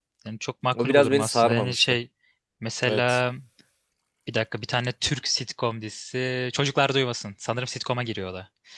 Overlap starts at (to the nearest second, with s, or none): 1 s